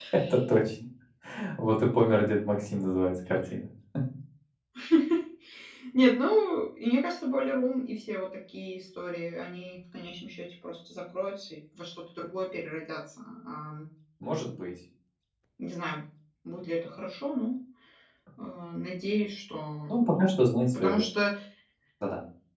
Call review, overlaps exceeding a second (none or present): none